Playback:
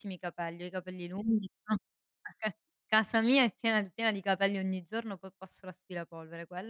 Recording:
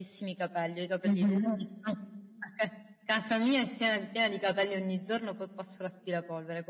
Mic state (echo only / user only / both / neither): both